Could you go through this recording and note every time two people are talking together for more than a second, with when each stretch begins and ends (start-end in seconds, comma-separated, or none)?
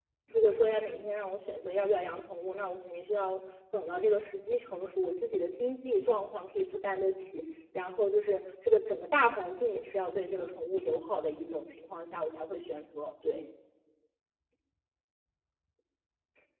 none